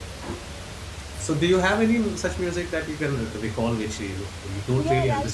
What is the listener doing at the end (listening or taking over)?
taking over